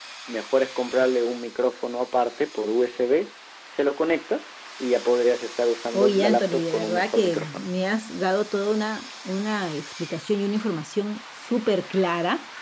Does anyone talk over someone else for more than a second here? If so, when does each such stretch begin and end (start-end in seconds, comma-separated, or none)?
6.0-7.7